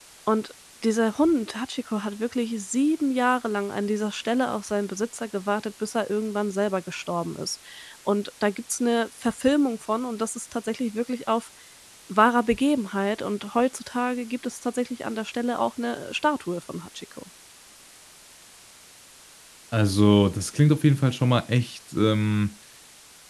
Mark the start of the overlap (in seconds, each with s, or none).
none